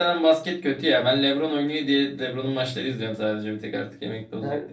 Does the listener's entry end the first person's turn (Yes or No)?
Yes